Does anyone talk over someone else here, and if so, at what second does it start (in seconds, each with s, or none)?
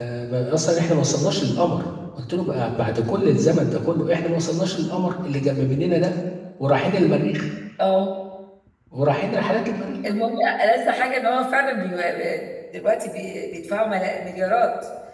none